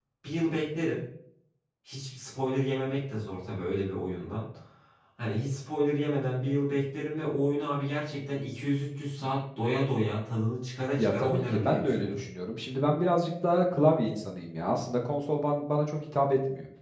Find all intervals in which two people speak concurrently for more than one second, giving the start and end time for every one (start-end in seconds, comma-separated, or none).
11.0-12.2